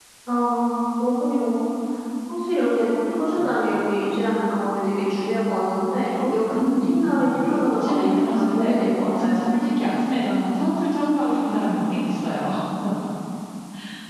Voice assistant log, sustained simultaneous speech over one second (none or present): present